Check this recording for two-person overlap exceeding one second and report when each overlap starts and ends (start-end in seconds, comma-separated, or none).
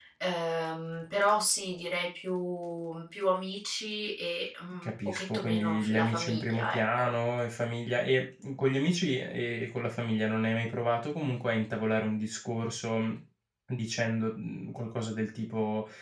4.8-7.1